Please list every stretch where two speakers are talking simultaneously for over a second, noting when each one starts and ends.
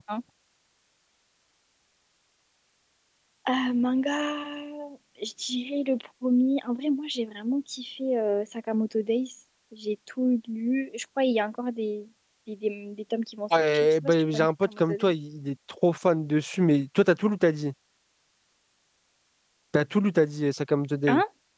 13.7-15.1

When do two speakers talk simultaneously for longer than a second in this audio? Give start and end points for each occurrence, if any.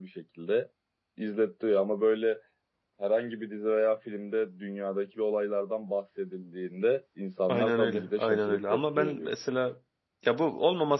7.5-9.3

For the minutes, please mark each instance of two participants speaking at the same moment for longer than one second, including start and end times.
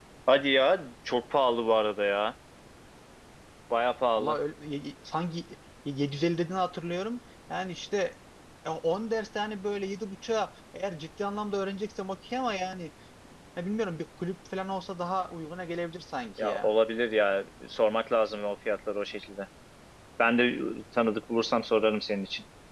none

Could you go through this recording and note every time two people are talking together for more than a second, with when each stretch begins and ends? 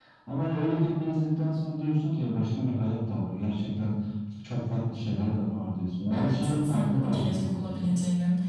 6.1-8.0

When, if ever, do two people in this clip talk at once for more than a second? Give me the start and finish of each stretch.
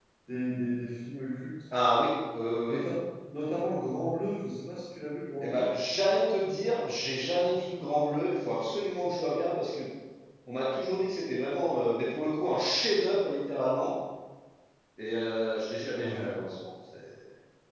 none

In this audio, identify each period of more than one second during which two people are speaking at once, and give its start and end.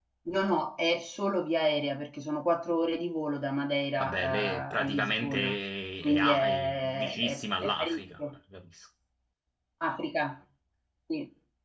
4.0-5.5, 6.0-8.2

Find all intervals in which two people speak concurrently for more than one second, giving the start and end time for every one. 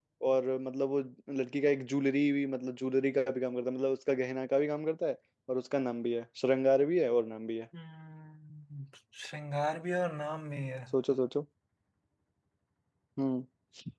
none

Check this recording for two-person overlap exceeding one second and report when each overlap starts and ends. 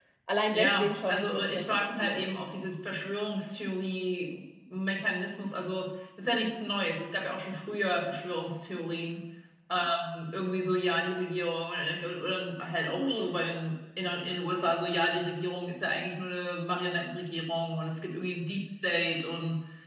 0.5-2.3

